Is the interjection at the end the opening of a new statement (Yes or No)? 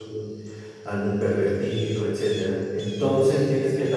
No